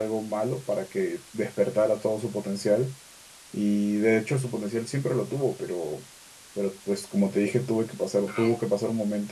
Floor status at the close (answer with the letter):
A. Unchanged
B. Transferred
A